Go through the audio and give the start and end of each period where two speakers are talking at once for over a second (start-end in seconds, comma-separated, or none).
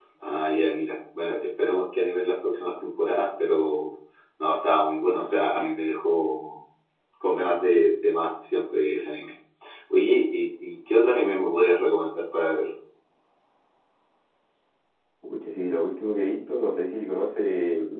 none